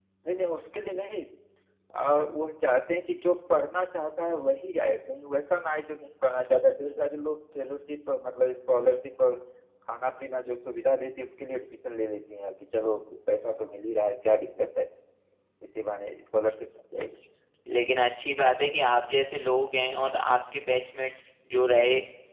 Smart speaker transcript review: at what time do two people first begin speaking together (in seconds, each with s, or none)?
none